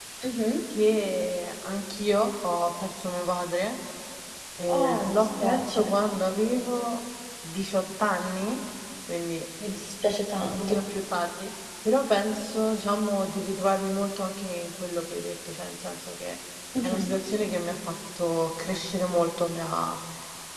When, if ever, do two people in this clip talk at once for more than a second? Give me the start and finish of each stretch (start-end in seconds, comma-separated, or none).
4.7-5.9